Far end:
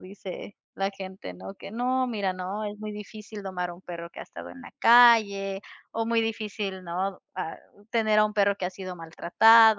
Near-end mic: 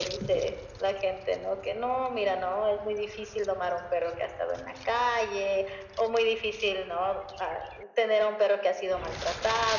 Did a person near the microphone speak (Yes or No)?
No